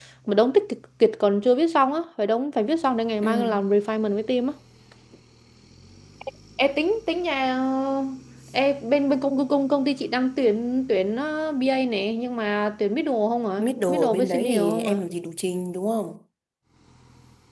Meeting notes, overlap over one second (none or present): present